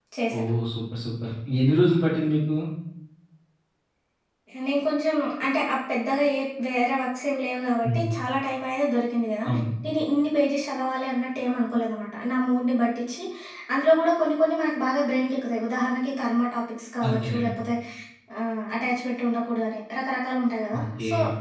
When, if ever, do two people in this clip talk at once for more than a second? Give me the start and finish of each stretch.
none

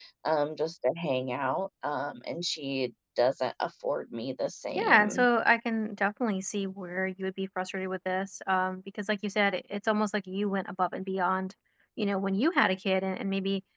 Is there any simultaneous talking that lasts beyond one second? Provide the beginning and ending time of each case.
none

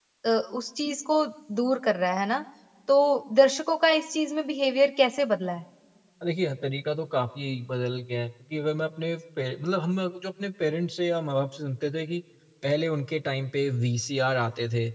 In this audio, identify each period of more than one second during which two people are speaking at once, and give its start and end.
none

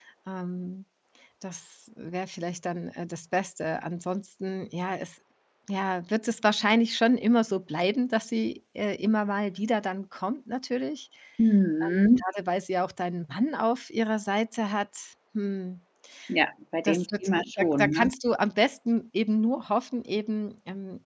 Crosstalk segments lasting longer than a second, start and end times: 16.8-18.1

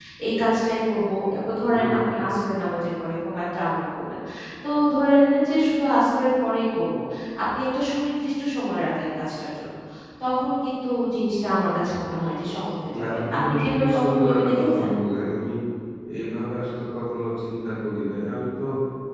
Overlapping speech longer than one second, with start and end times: 13.0-14.9

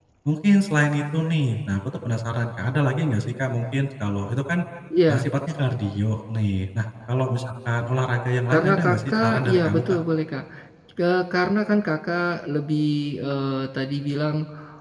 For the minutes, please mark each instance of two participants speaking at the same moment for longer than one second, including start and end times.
8.5-9.8

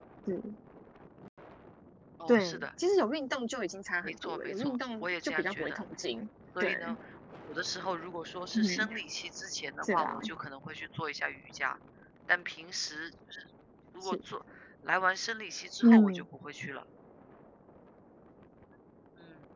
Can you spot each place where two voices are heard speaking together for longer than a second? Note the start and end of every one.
4.0-5.8

